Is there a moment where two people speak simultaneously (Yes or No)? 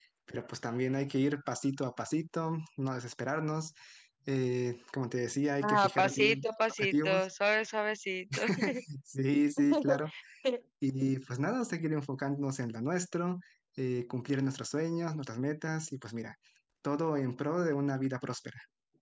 Yes